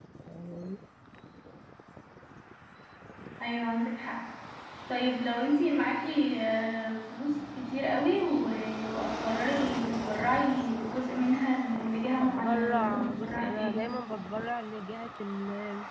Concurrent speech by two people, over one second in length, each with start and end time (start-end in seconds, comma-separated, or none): 12.2-13.8